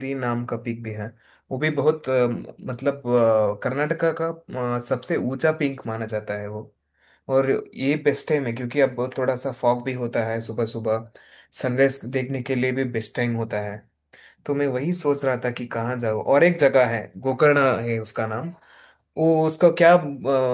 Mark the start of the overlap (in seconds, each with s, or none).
none